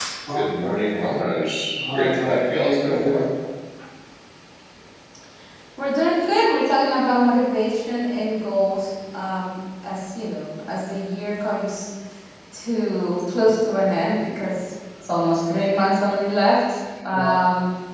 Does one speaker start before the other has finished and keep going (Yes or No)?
Yes